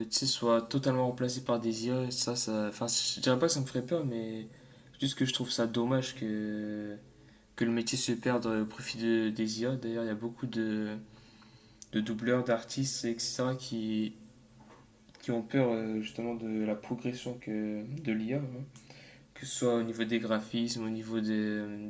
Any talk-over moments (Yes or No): No